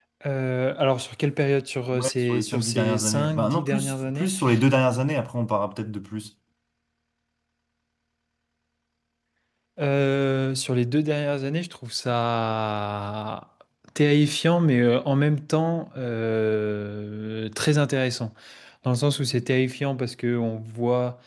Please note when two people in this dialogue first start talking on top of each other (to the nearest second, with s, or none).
2 s